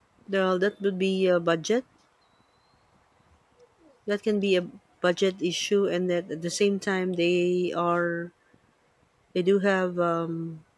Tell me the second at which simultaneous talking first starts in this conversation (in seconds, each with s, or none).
none